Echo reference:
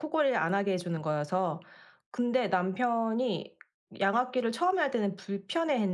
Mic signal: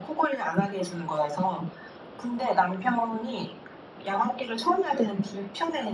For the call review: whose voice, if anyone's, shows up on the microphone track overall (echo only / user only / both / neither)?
echo only